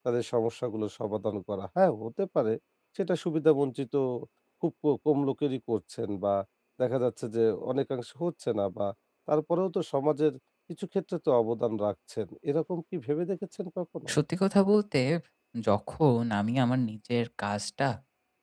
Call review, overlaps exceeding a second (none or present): none